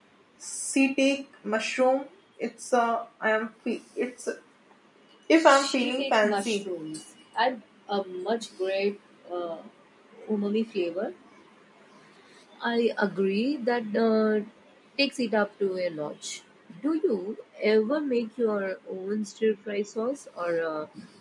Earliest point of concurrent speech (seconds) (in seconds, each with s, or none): 5.4 s